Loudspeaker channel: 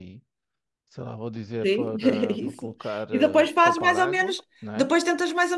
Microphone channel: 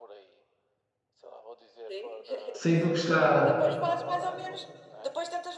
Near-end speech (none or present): present